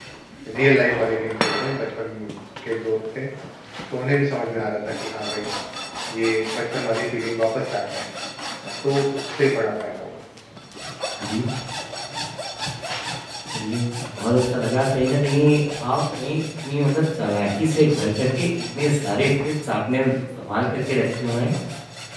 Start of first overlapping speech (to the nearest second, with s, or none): none